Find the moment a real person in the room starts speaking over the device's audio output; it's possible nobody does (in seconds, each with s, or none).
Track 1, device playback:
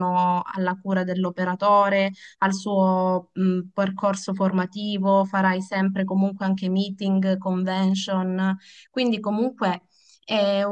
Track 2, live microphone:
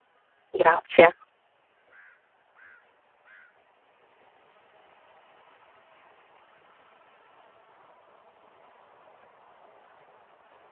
0.5 s